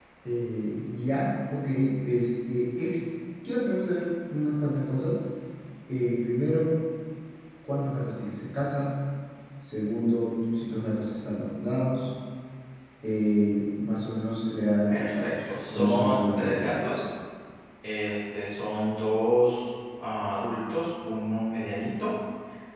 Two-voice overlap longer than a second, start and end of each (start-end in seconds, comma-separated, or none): 14.9-16.8